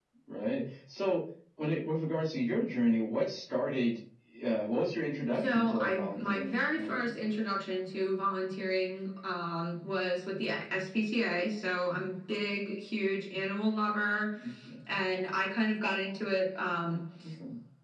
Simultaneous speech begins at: 5 s

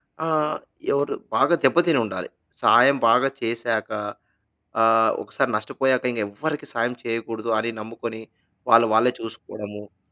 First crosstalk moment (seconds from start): none

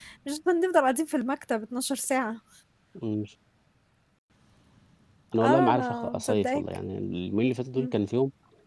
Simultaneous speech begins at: 5 s

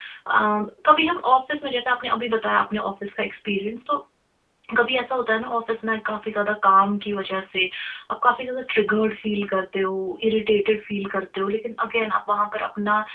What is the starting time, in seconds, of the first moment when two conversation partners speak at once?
none

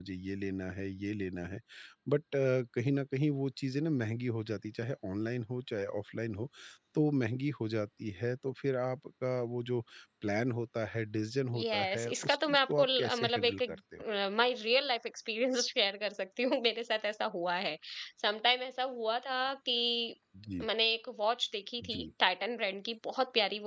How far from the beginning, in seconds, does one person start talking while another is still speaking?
12 s

